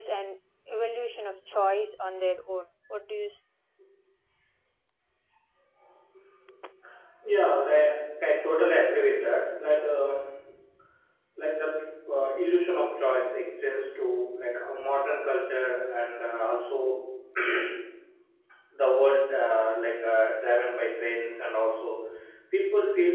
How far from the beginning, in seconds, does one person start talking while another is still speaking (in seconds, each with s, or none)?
none